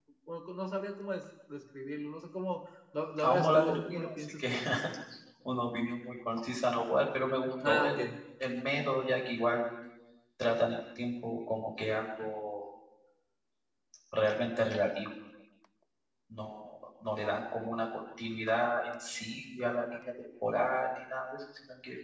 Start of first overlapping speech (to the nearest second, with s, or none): 3 s